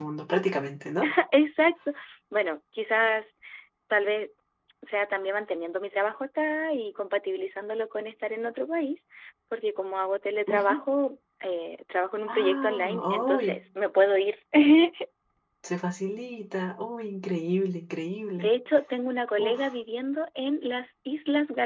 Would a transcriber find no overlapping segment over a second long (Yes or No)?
No